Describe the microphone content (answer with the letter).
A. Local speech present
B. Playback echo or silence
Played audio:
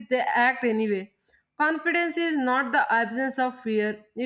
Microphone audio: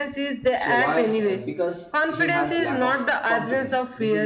A